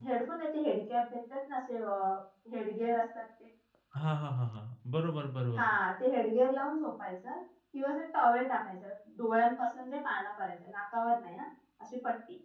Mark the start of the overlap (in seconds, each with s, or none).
none